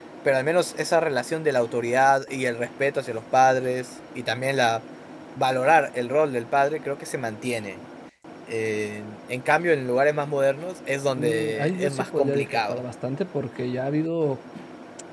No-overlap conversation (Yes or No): No